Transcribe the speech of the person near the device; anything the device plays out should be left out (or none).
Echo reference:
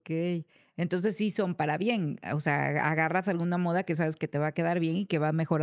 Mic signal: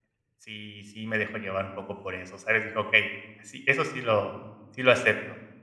sí sí me dejo llevar un poco por eso, ¿sabes? Dije: "Okey, así eso sí lo sí lo acepto".